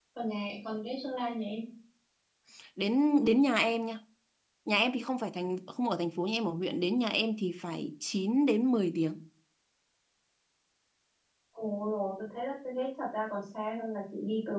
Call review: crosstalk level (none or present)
none